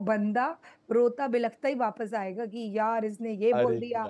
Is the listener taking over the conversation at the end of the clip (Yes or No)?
No